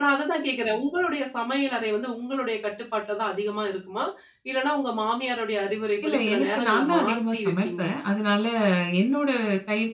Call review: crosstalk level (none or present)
present